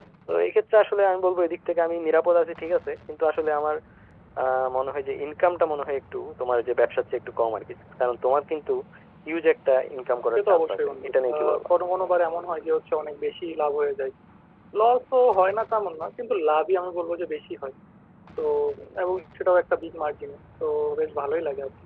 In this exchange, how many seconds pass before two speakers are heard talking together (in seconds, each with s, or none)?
10.4 s